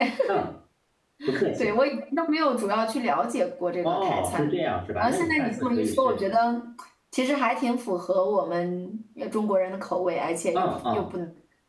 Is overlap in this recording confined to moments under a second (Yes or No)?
No